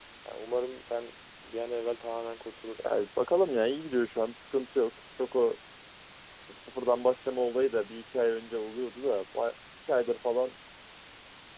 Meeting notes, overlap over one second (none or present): none